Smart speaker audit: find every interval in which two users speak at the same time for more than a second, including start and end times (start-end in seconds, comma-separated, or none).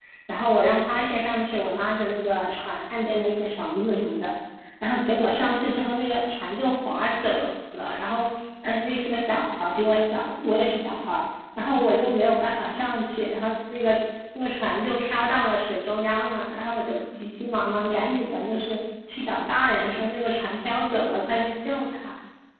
none